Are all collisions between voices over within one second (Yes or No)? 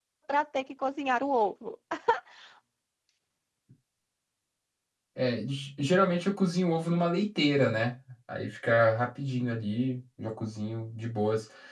Yes